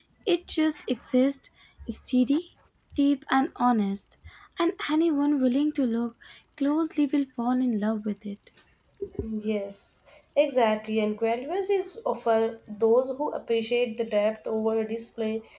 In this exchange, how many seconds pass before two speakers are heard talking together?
none

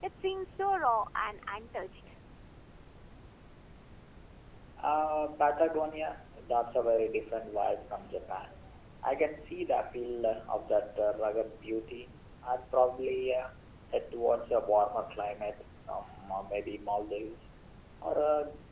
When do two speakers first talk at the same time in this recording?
none

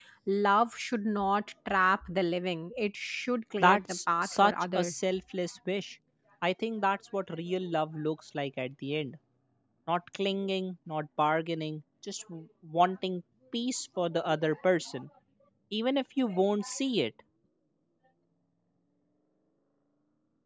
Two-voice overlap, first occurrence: 3.6 s

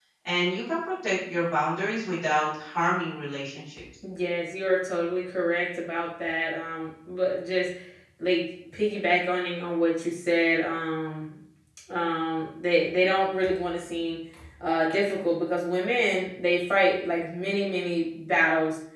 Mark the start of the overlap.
none

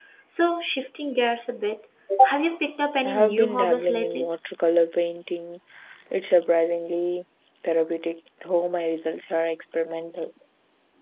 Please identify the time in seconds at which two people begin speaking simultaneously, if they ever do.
3.0 s

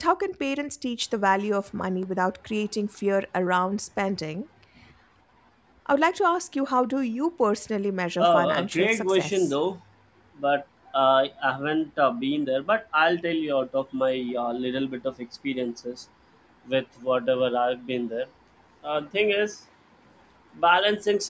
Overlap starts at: 8.2 s

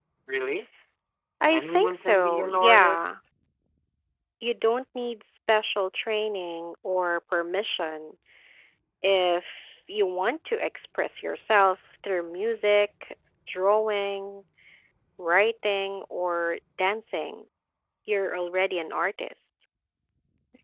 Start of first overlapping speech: 1.4 s

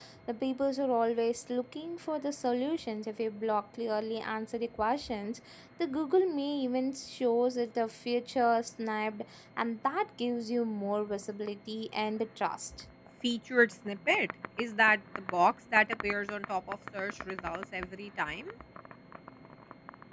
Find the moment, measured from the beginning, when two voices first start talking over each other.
none

